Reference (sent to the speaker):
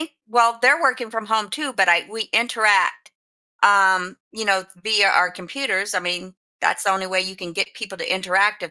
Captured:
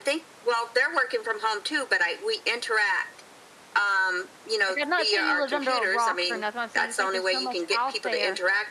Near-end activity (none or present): present